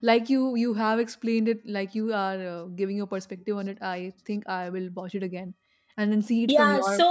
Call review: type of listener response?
taking over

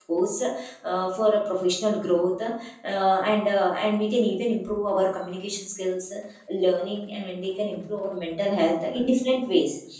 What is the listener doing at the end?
listening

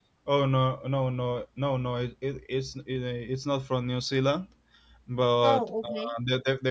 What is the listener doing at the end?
listening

